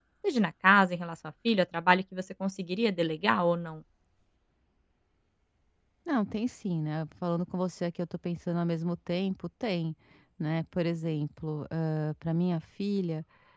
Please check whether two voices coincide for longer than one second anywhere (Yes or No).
No